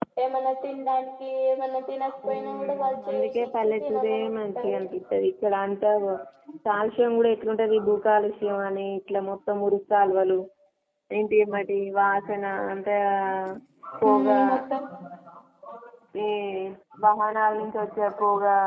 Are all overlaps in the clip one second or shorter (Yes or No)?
No